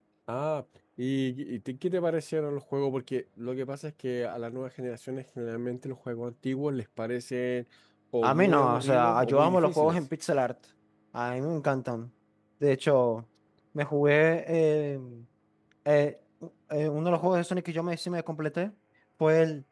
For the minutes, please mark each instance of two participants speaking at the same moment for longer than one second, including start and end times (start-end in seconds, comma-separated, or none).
8.2-10.0